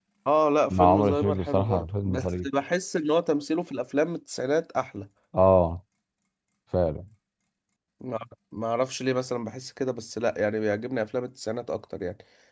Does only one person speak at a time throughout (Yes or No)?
No